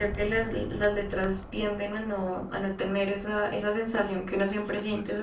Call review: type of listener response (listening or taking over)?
listening